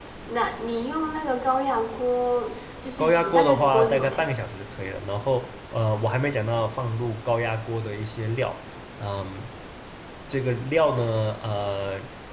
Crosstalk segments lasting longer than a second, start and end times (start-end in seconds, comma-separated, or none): 3.0-4.3